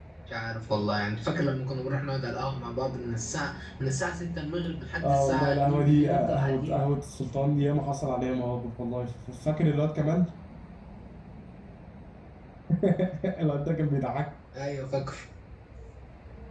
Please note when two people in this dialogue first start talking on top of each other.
5.0 s

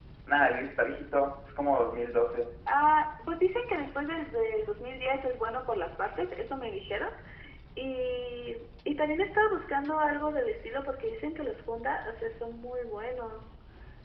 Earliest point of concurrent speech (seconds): none

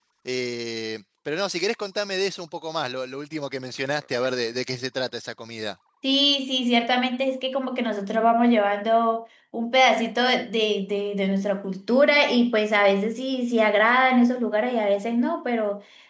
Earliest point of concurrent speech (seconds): none

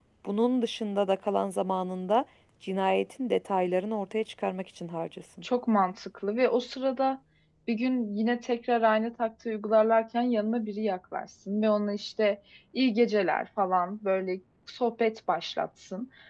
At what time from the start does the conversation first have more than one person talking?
none

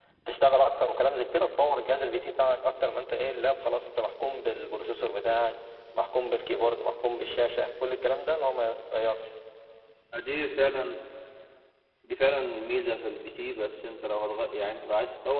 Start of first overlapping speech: none

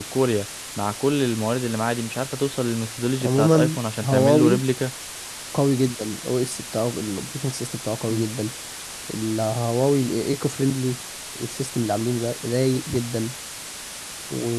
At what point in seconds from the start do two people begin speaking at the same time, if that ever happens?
3.2 s

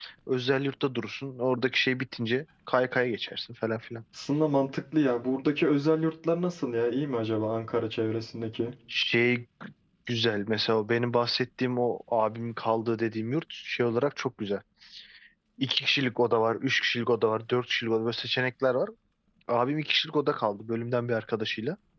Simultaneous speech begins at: none

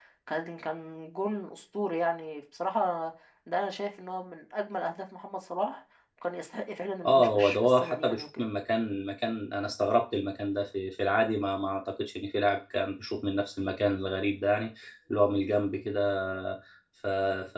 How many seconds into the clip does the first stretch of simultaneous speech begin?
7.0 s

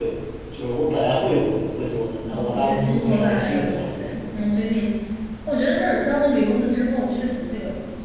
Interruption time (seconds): 2.2 s

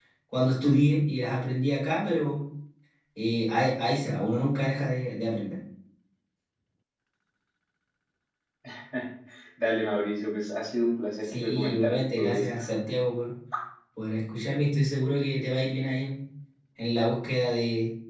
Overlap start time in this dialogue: 11.3 s

